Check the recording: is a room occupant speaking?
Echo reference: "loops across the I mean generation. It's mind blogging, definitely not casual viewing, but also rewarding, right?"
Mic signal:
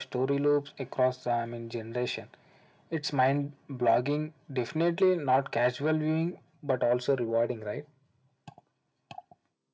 No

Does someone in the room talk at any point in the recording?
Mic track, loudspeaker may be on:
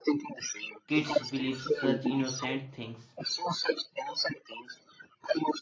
Yes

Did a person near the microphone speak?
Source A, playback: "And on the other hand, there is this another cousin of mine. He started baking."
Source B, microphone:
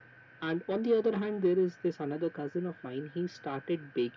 No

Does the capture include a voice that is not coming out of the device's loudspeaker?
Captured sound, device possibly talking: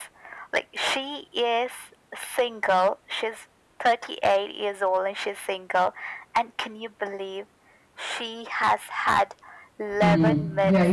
Yes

